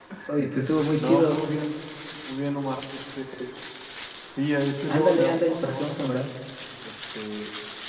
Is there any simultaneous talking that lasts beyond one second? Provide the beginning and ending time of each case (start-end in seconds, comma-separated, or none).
4.9-6.2